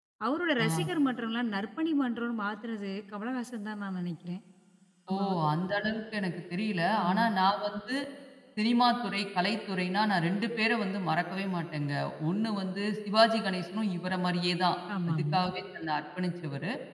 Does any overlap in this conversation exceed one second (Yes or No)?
No